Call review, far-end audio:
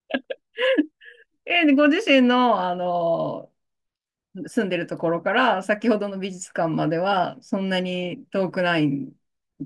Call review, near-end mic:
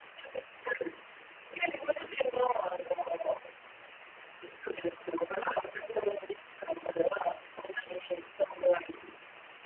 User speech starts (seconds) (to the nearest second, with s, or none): none